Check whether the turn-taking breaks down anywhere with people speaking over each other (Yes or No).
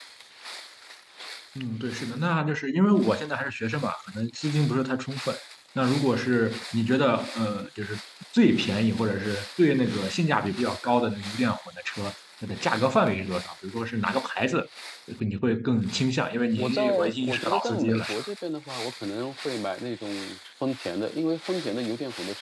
Yes